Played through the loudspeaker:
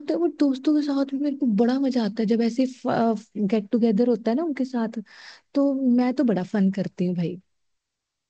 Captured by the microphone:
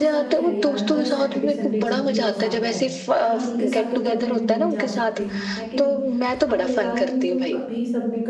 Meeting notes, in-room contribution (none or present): present